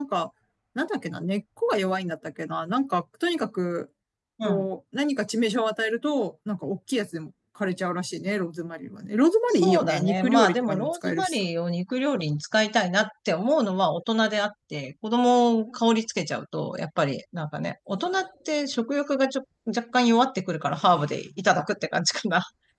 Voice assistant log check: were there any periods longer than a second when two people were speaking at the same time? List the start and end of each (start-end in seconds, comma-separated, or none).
9.5-11.5